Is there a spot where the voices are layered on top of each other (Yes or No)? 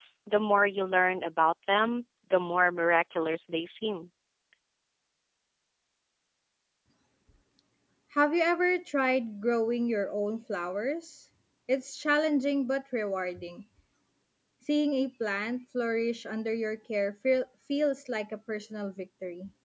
No